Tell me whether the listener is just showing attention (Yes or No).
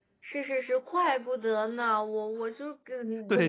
No